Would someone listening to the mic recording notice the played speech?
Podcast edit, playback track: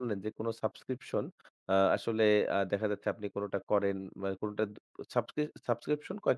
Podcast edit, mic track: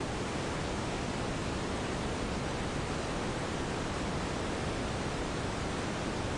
No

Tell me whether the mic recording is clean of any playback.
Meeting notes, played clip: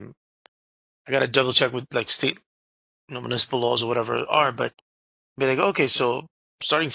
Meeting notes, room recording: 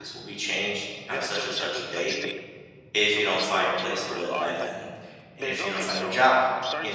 No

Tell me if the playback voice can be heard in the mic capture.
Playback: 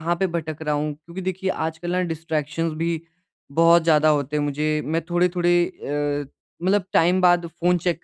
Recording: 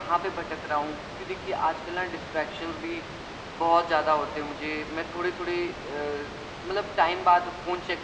Yes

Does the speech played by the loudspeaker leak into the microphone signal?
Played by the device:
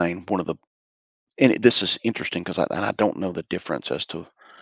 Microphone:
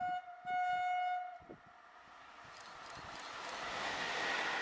No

